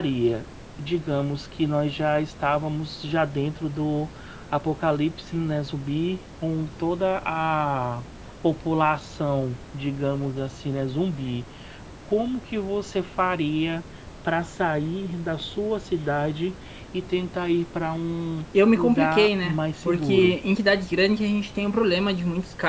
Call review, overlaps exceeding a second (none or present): present